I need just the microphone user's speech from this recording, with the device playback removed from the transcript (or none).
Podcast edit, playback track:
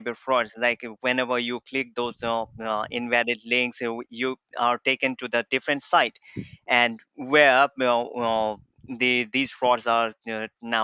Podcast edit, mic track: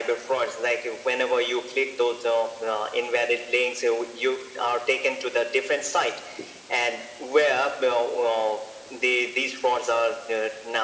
none